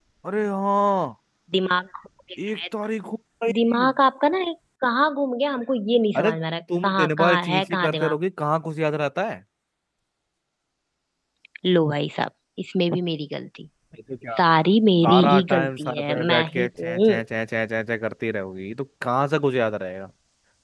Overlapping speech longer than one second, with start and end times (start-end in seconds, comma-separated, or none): 6.8-8.2, 15.0-17.1